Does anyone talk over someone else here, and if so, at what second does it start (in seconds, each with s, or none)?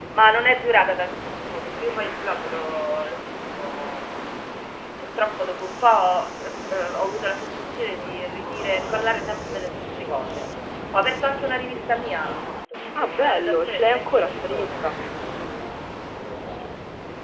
13.0 s